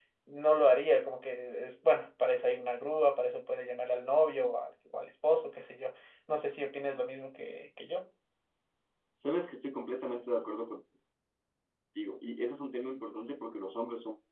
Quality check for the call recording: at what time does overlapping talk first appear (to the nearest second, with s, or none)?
none